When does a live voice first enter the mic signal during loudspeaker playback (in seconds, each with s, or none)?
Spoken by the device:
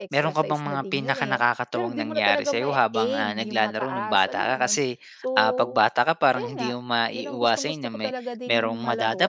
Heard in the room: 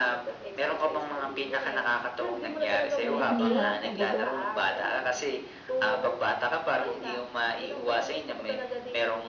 3.0 s